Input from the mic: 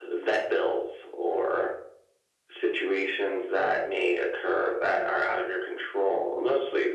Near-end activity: none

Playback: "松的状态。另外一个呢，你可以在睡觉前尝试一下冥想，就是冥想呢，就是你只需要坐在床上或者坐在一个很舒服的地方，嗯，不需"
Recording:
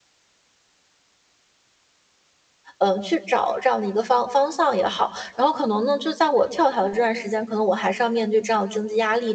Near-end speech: present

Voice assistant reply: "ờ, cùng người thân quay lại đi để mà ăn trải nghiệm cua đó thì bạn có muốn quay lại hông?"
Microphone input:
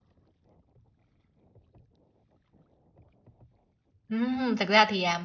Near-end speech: present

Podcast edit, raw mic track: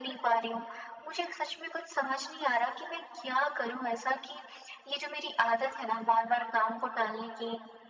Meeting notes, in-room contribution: none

